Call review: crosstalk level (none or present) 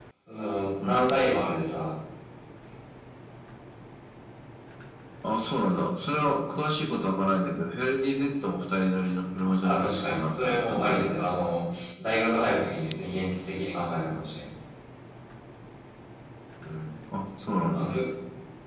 present